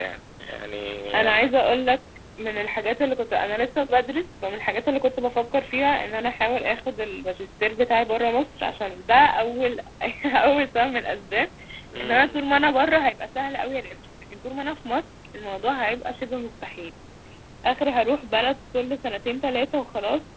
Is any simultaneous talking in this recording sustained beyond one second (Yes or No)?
No